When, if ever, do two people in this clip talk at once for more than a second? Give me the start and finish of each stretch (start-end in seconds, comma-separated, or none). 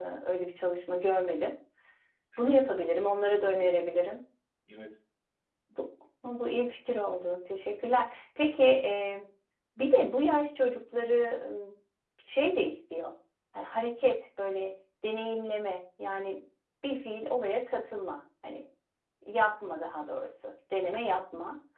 2.4-3.8